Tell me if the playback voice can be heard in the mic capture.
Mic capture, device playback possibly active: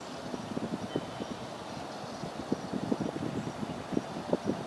No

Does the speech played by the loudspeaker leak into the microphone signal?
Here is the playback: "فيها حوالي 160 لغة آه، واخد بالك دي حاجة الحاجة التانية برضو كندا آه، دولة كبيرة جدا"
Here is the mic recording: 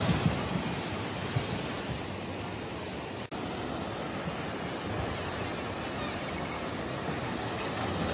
No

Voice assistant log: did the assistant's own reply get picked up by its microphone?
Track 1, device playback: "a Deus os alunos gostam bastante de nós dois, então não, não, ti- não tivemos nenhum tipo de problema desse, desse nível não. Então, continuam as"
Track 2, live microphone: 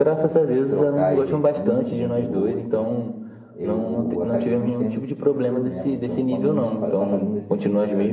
Yes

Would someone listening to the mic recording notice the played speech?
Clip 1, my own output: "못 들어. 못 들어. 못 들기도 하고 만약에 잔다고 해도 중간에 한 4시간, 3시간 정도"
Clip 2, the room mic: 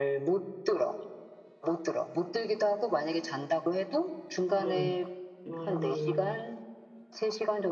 Yes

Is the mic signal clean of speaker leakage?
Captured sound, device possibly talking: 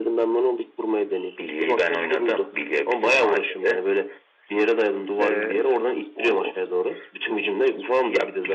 No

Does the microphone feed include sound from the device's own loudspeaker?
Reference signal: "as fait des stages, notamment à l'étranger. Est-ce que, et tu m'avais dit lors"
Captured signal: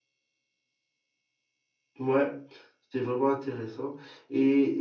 No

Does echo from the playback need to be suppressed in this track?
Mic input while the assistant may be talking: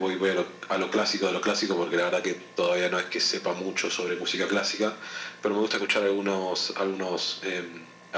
Yes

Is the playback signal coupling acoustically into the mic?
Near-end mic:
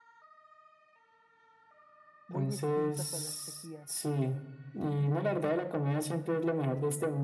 Yes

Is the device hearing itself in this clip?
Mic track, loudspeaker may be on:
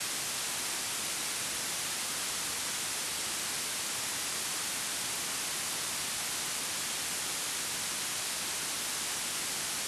No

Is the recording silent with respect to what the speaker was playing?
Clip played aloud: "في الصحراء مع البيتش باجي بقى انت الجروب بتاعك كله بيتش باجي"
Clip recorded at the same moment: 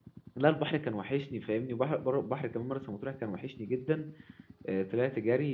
Yes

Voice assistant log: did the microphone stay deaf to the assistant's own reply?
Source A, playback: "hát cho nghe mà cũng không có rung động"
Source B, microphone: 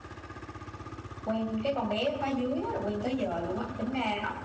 Yes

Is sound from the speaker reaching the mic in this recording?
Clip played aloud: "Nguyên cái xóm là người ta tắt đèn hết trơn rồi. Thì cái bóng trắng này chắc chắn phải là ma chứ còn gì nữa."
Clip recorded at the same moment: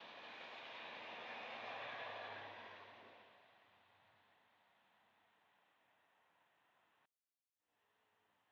No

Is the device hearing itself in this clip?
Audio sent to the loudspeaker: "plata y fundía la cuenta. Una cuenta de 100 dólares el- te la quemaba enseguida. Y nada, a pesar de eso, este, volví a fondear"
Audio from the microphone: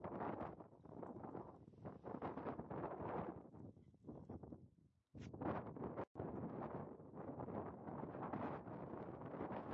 No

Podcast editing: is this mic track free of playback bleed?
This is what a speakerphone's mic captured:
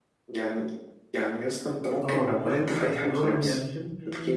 No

